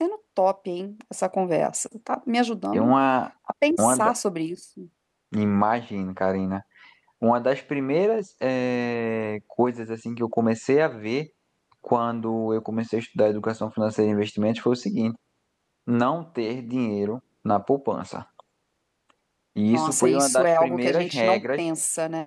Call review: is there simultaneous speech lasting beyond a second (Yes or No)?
Yes